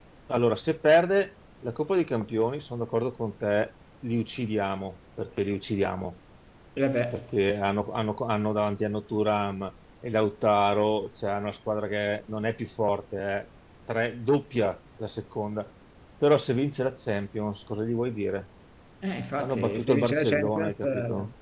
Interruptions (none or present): present